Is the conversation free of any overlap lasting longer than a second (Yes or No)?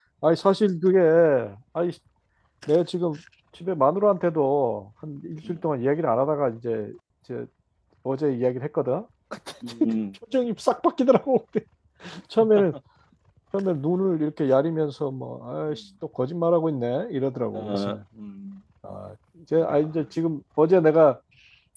Yes